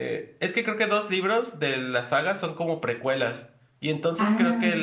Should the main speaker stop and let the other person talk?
No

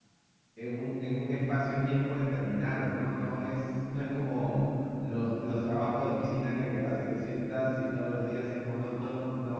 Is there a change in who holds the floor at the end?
No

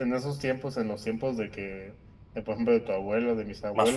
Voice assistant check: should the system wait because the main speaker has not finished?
Yes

